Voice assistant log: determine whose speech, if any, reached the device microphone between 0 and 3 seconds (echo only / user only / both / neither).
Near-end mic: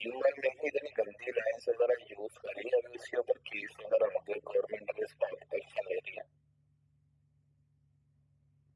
echo only